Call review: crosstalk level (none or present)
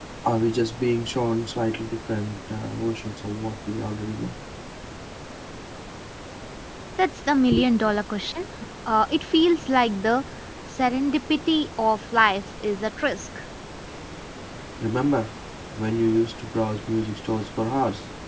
none